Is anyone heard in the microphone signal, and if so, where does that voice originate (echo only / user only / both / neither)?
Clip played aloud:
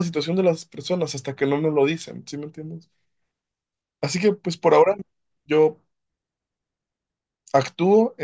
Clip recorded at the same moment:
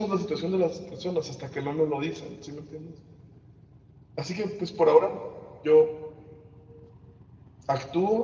echo only